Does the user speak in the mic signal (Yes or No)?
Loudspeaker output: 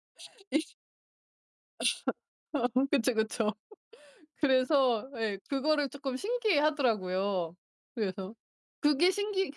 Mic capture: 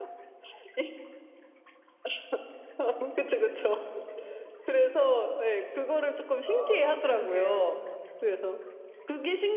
Yes